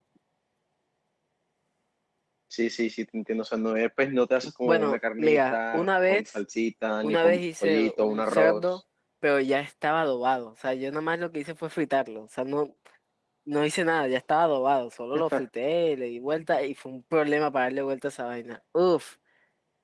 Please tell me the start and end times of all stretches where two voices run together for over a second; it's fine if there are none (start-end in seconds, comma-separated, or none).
4.6-6.4, 7.0-8.8